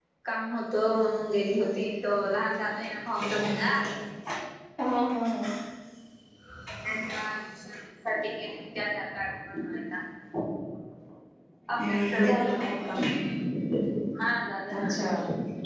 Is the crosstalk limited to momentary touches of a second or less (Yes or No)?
No